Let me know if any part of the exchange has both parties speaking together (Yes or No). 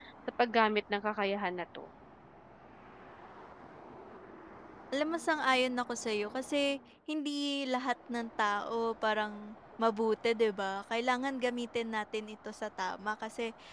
No